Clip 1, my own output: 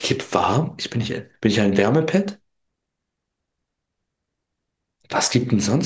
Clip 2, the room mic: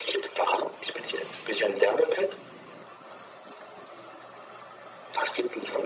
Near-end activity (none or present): none